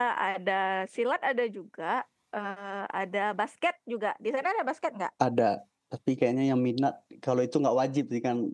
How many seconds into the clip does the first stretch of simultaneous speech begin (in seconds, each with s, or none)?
none